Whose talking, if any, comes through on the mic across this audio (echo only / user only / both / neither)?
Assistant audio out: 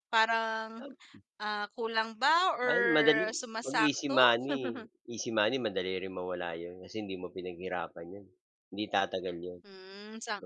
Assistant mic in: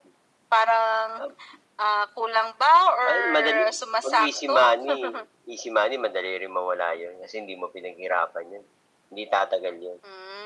echo only